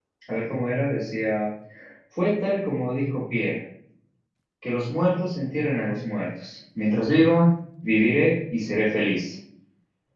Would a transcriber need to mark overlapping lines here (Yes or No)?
No